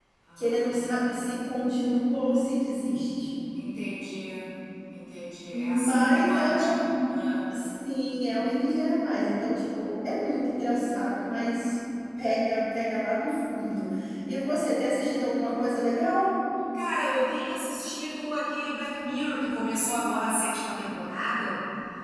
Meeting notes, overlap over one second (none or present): present